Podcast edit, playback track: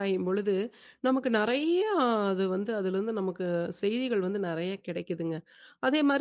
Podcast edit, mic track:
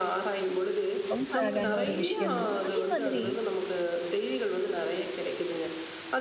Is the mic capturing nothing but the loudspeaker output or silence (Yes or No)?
No